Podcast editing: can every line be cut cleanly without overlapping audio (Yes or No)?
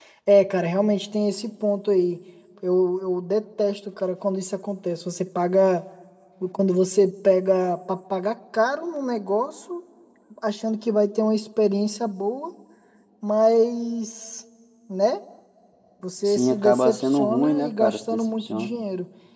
No